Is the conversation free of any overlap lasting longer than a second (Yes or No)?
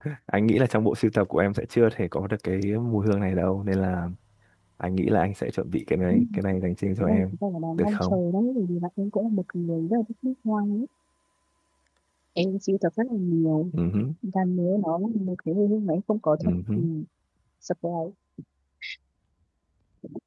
Yes